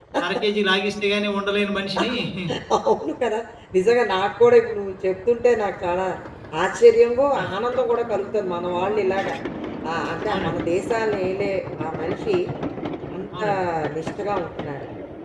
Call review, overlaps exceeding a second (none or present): none